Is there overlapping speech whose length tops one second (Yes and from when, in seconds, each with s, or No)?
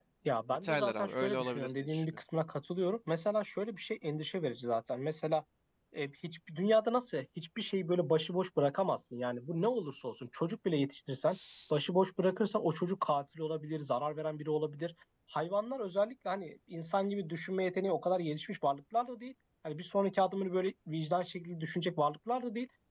Yes, from 0.5 s